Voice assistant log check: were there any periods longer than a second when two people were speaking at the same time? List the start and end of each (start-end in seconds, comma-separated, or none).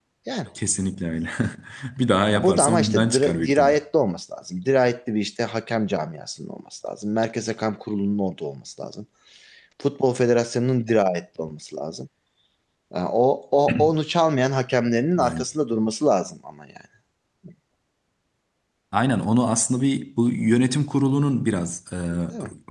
2.3-3.8